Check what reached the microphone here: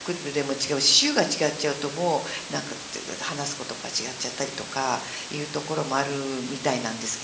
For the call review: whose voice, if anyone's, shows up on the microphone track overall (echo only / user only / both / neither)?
user only